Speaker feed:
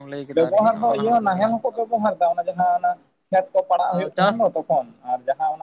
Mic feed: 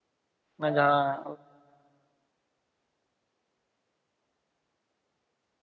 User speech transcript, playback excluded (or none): ᱚᱱᱟ ᱡᱟᱦᱟᱸ